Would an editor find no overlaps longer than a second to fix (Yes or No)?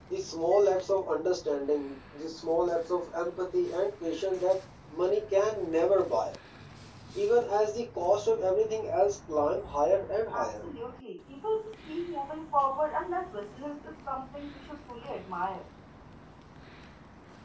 Yes